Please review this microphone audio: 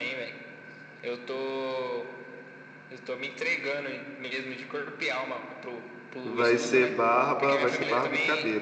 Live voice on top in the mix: Yes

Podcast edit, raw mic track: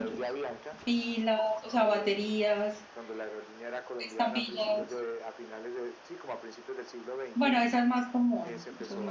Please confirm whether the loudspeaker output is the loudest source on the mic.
No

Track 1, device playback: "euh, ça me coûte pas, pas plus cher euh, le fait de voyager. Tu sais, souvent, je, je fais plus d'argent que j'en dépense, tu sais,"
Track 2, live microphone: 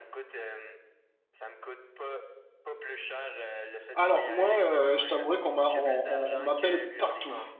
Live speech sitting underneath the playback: No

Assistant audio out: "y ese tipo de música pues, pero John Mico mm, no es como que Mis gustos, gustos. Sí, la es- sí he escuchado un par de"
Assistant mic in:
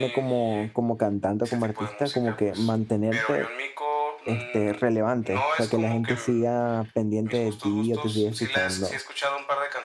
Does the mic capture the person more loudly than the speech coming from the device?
Yes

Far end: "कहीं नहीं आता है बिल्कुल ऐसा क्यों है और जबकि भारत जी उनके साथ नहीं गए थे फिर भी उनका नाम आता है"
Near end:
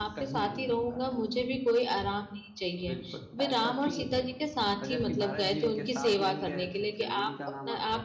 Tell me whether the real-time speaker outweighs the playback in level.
Yes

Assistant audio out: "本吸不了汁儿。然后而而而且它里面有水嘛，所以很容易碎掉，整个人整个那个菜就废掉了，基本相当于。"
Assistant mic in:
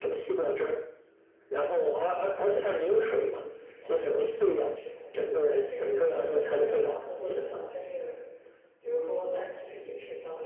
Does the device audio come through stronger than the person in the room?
Yes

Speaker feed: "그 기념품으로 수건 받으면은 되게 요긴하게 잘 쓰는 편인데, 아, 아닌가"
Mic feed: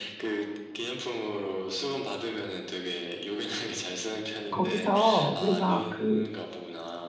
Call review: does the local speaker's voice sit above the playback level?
Yes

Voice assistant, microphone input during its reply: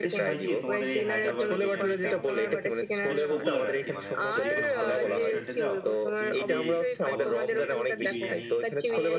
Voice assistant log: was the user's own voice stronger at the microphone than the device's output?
No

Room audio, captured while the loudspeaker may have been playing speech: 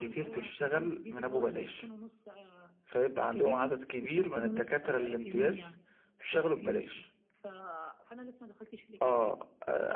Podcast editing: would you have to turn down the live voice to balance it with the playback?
No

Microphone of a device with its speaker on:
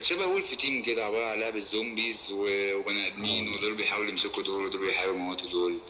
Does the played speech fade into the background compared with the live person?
No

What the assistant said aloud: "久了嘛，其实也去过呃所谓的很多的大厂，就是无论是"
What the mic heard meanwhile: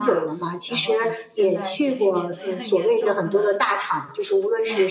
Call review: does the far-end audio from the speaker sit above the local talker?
Yes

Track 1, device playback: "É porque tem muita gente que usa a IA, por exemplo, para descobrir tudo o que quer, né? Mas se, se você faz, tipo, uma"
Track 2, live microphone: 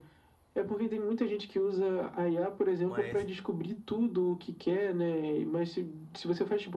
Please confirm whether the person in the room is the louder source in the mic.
No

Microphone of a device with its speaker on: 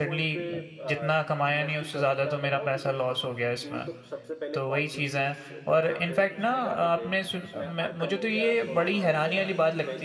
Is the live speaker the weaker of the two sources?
No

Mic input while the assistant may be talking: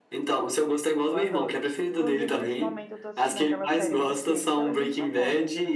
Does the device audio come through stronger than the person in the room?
Yes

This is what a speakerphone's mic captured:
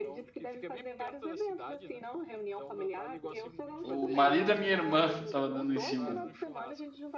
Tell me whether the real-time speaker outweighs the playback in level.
Yes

